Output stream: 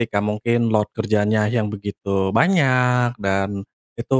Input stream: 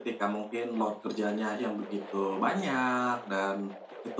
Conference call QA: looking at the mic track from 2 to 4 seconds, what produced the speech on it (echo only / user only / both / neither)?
echo only